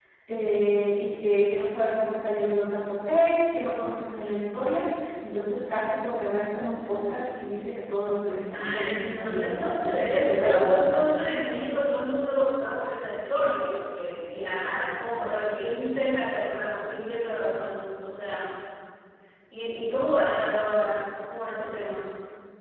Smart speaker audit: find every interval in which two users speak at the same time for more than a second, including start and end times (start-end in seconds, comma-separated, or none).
8.5-11.1